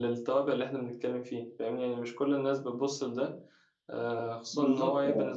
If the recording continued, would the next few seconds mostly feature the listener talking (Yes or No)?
No